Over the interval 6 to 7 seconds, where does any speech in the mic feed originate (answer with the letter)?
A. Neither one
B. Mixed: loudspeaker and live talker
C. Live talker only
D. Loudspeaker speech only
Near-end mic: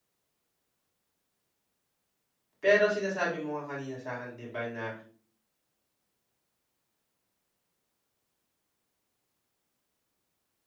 A